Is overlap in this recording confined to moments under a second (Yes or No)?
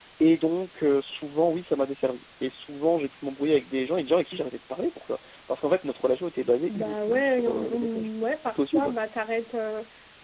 No